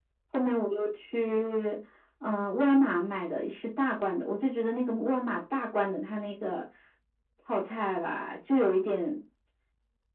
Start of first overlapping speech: none

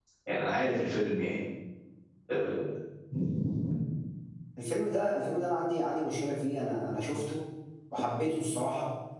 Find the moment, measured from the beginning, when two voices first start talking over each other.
none

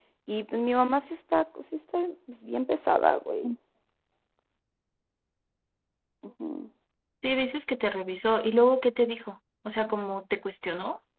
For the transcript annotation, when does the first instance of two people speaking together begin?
none

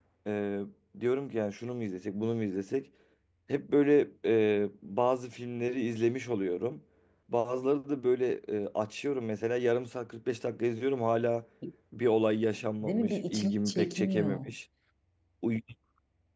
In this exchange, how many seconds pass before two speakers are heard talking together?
12.8 s

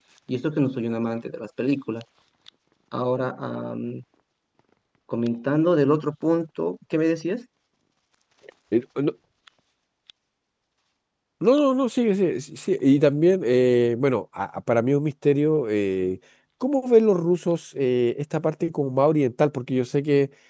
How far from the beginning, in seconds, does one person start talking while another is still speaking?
none

